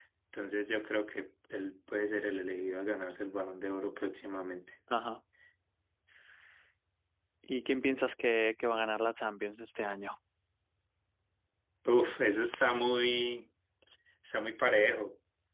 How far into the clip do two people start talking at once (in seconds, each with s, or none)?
none